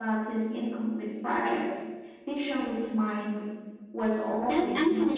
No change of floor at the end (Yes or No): No